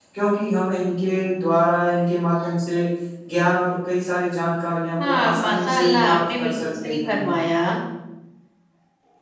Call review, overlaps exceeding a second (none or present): present